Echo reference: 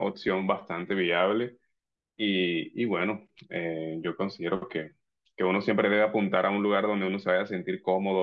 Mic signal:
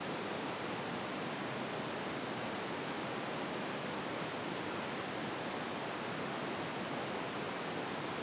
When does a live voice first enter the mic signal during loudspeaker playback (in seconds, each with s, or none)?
none